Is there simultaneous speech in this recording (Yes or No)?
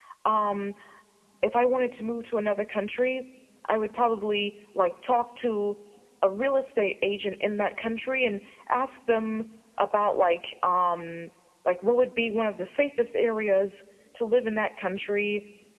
No